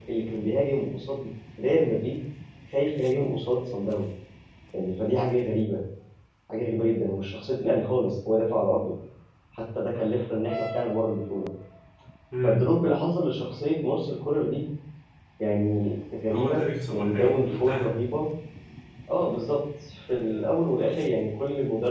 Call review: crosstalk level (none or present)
present